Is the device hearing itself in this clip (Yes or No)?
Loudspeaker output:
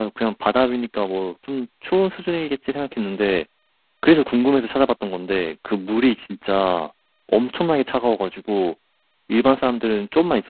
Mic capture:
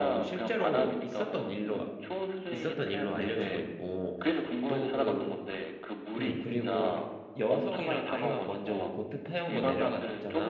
Yes